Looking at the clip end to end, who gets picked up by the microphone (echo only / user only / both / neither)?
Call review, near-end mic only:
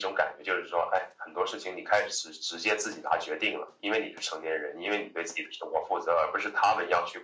echo only